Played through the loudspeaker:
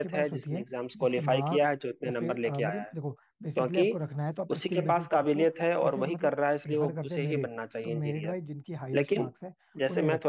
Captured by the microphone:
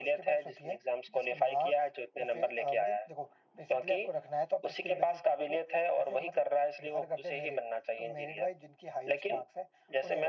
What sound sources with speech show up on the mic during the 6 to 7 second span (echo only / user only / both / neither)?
echo only